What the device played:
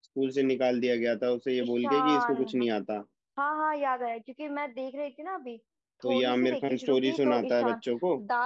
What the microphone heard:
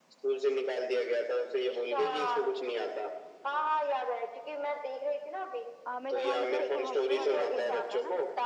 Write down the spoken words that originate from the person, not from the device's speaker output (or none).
आमिर खान मतलब इसको हॉस्टल वाले स्कूल में मिलता है ना